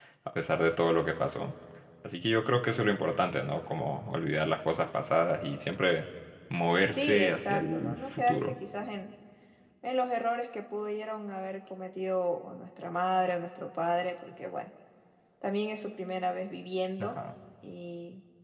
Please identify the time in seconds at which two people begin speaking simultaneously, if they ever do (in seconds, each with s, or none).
6.9 s